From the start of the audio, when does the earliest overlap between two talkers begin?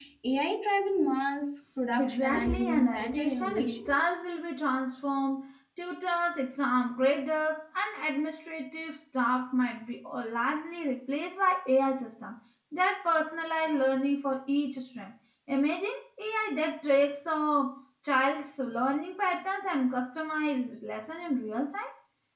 2.0 s

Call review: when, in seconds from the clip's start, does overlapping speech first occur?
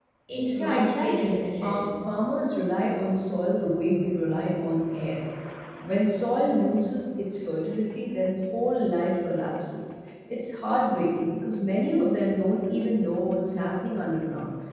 0.6 s

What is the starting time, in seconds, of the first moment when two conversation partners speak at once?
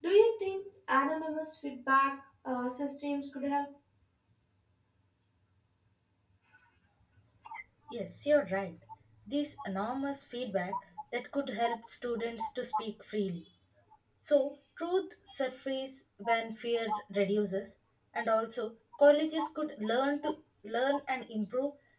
none

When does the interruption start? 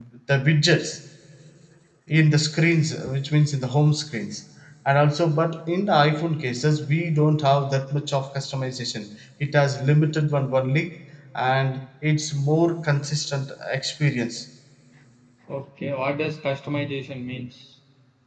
none

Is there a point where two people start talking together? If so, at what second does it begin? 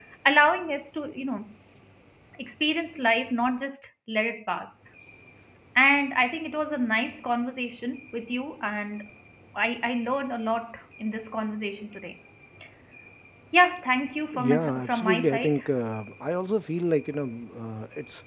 14.3 s

